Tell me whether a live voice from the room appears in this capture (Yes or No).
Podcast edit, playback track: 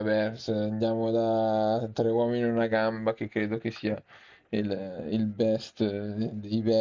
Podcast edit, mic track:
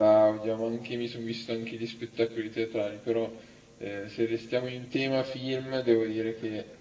Yes